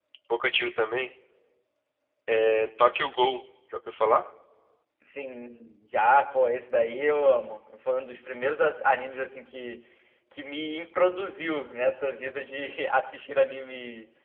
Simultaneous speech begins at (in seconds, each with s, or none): none